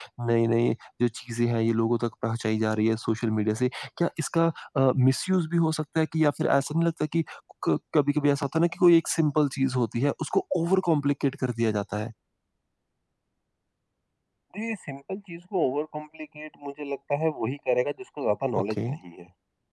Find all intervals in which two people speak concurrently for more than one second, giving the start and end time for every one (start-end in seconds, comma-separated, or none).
none